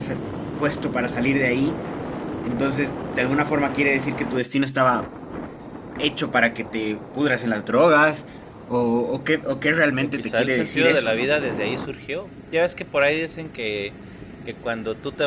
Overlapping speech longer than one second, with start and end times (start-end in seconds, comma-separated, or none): 10.0-11.3